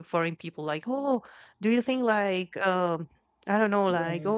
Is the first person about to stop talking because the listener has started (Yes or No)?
No